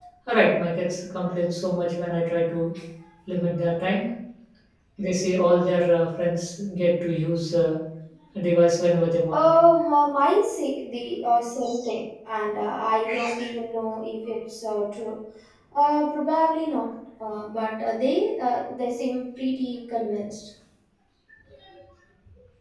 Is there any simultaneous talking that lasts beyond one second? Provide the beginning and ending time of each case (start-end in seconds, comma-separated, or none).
none